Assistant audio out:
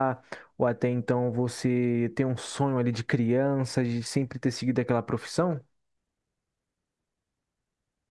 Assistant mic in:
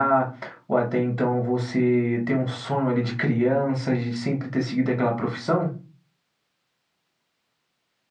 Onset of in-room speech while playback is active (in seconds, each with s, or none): none